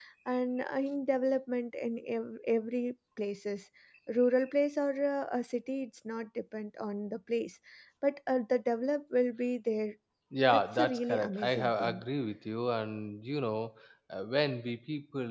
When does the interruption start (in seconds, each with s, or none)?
10.5 s